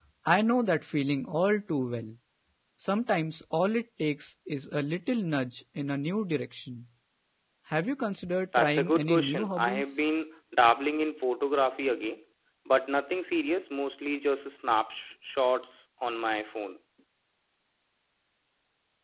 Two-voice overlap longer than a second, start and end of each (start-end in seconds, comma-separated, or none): 8.6-9.8